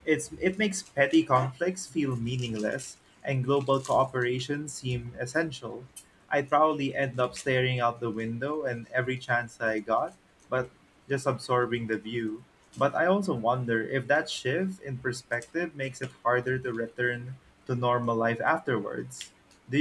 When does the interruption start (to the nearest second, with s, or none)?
none